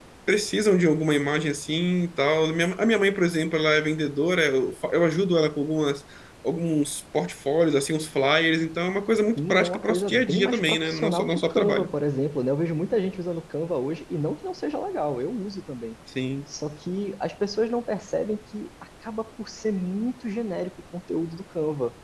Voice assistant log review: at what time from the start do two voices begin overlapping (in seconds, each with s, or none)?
9.4 s